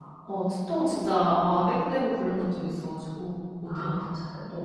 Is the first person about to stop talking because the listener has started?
Yes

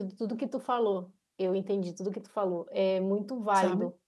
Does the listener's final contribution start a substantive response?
No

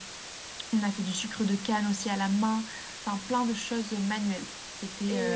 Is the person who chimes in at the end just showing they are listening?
No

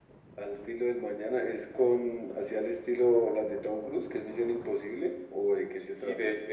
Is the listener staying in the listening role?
No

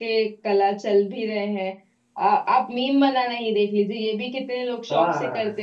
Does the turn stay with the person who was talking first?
Yes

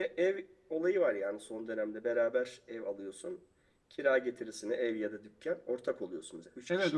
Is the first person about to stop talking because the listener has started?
Yes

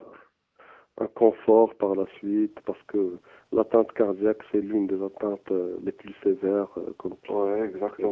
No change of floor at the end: No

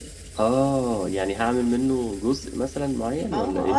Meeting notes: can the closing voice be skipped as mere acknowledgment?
No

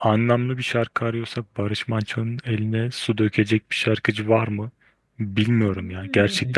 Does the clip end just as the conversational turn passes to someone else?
Yes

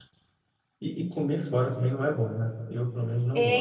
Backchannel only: No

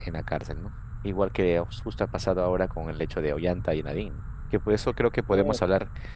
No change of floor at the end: Yes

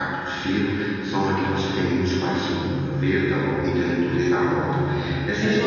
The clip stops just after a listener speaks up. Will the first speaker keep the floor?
Yes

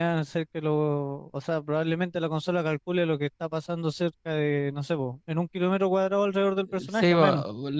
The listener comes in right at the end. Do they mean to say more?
Yes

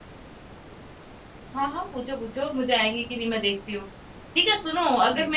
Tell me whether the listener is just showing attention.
Yes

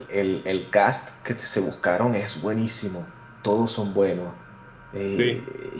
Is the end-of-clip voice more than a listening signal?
No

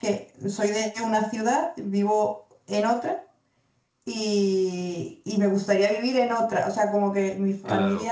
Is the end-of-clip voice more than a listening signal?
No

